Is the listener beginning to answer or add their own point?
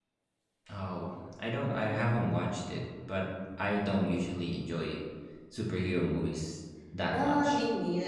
Yes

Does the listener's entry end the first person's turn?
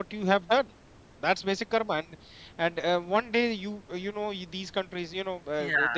No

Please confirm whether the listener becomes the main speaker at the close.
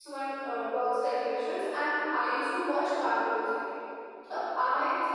No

